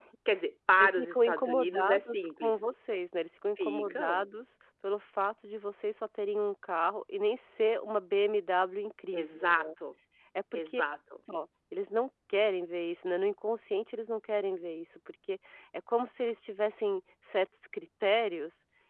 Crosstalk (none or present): present